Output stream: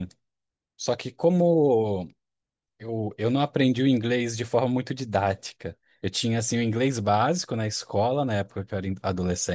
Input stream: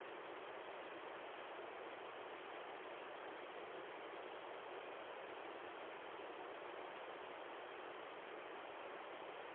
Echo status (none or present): none